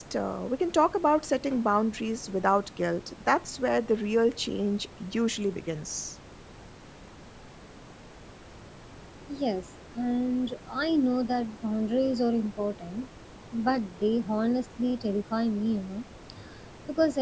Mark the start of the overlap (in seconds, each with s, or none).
none